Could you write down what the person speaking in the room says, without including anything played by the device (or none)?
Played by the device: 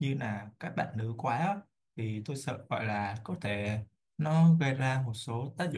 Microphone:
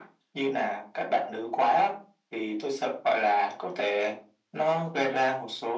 none